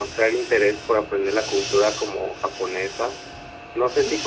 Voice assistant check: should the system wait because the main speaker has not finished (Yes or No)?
Yes